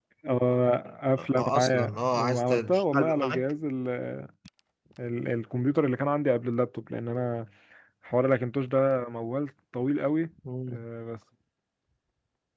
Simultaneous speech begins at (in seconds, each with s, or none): 1.2 s